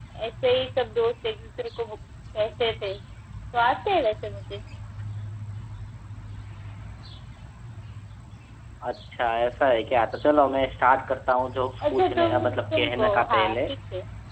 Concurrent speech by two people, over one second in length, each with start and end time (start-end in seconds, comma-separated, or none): 11.9-13.6